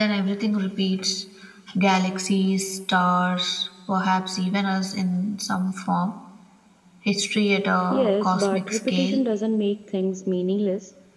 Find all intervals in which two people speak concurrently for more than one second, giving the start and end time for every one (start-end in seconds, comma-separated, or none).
7.9-9.2